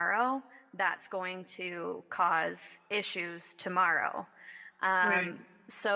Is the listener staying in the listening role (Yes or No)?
Yes